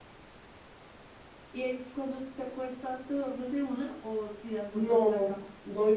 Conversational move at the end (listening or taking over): taking over